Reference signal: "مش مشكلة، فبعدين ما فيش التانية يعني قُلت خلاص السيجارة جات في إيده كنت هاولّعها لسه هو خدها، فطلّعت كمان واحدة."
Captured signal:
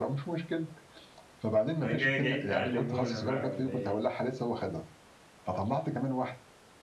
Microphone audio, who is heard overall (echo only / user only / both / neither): both